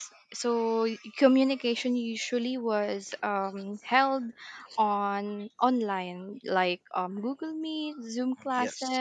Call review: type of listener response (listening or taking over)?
listening